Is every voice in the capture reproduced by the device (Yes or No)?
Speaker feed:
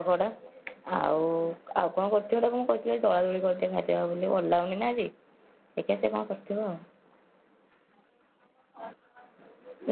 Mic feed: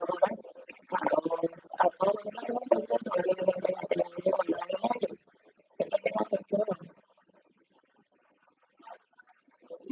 Yes